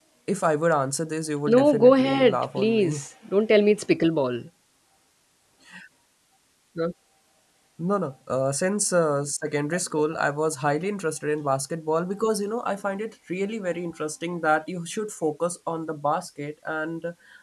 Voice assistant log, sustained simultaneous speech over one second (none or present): present